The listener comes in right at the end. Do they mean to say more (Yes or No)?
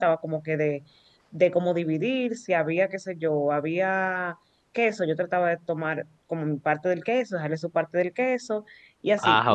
No